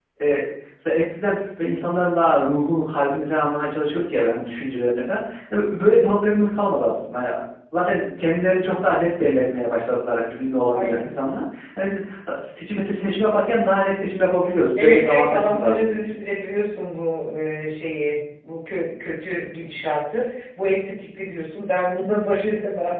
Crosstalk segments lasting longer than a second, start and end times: 14.8-16.2

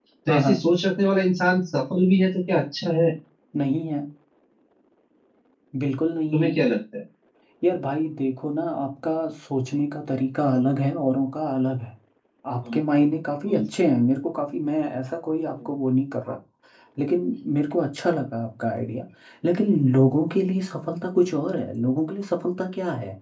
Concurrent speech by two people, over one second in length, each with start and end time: none

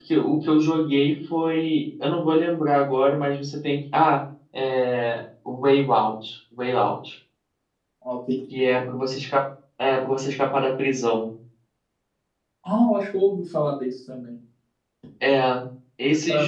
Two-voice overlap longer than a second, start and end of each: none

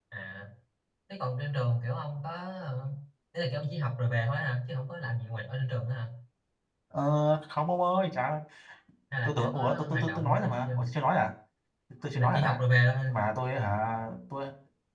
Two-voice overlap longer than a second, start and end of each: 9.2-10.8

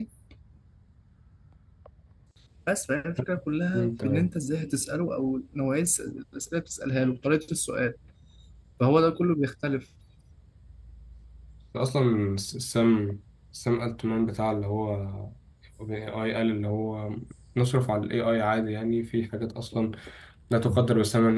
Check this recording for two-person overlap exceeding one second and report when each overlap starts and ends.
none

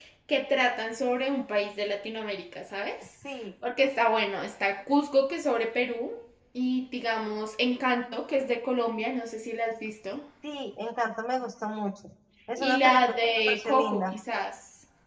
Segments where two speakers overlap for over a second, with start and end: 12.6-14.1

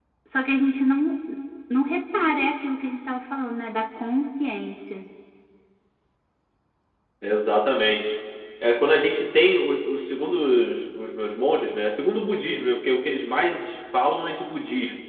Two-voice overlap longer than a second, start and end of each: none

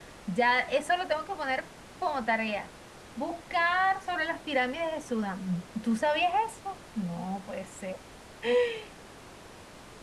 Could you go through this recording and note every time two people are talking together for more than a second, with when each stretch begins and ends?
none

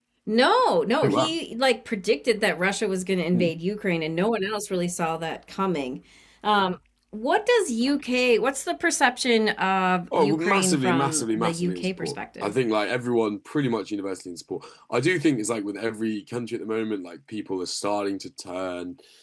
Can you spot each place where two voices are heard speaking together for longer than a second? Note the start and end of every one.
10.1-12.5

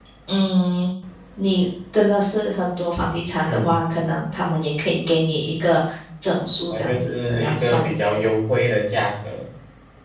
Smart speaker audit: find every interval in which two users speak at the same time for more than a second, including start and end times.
6.7-7.9

